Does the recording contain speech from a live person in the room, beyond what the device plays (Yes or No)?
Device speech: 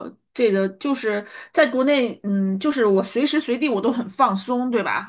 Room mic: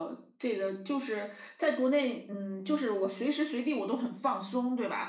No